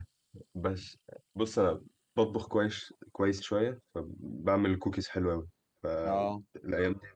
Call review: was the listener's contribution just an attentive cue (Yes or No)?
Yes